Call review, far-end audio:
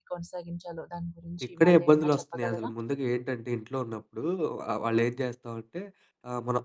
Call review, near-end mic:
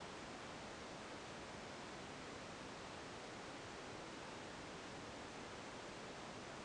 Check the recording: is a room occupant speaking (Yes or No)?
No